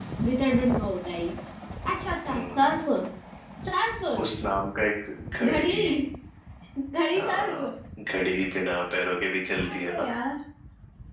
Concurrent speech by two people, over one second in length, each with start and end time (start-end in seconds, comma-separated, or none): none